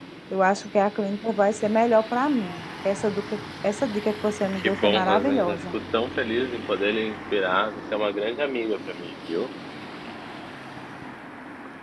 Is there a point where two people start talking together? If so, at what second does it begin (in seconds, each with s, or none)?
4.5 s